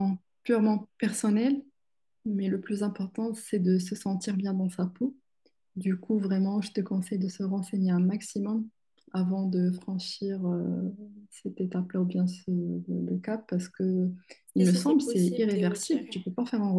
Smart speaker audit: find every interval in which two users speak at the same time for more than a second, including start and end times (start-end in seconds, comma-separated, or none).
14.6-16.2